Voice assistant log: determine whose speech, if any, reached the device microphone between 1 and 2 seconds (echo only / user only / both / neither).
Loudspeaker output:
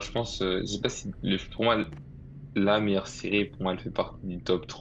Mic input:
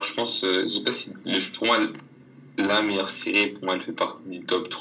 echo only